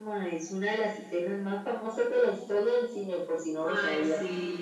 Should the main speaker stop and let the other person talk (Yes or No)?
Yes